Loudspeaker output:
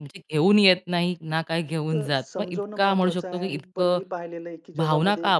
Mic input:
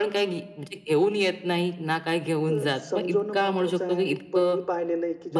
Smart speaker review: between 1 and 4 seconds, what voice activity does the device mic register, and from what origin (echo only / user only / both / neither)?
echo only